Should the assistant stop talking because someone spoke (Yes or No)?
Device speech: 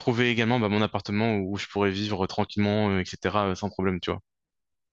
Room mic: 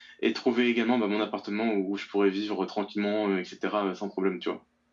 No